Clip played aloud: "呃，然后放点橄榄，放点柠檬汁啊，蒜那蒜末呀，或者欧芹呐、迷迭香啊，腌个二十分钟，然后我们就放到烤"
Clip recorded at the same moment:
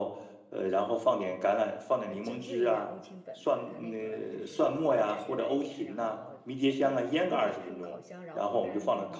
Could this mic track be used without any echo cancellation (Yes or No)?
No